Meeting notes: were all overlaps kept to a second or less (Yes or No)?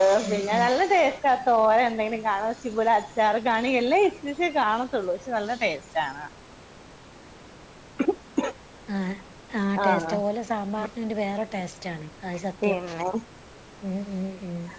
Yes